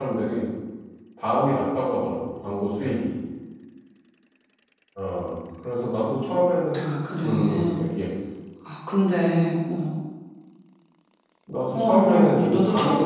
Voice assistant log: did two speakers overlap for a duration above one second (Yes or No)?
Yes